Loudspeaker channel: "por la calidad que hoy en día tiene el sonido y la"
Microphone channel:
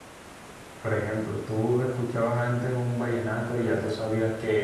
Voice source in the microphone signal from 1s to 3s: user only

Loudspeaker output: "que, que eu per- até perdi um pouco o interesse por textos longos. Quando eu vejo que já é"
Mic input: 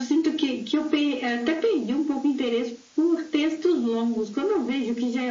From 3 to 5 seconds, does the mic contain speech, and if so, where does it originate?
echo only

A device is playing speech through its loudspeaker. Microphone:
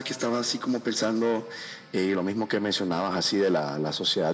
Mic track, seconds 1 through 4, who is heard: echo only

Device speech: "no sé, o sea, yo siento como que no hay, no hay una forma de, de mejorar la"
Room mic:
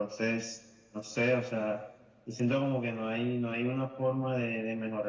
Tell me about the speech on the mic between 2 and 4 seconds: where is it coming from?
echo only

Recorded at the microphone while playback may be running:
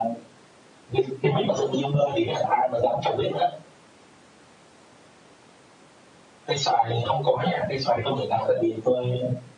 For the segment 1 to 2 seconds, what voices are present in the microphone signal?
echo only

